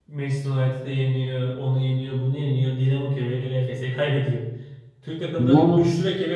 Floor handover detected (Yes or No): No